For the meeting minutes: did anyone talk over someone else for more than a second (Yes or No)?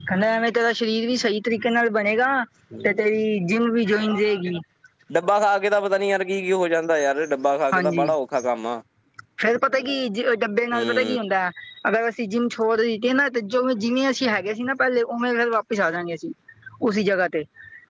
No